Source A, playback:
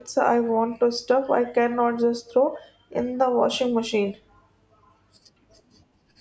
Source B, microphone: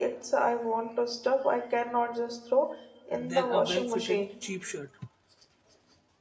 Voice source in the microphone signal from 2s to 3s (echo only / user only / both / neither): echo only